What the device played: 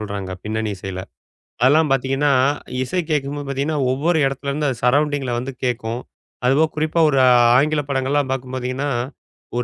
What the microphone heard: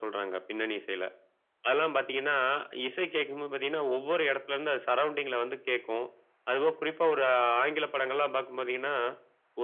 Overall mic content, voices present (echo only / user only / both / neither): echo only